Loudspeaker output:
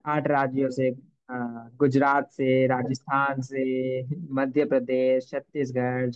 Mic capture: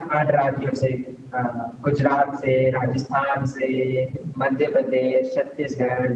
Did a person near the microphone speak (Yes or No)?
No